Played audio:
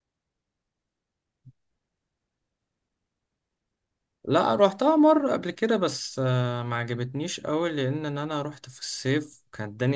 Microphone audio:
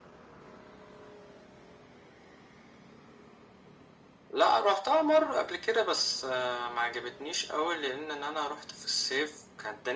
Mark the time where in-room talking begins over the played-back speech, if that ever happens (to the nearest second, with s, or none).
none